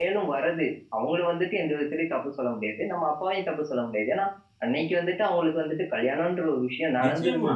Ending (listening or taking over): taking over